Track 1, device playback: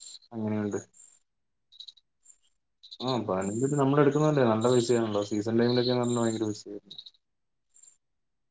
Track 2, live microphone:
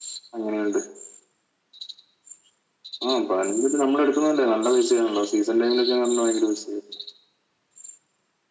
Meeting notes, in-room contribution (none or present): none